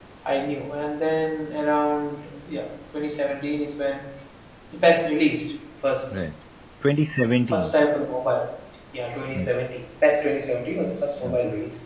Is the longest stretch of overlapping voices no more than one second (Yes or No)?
Yes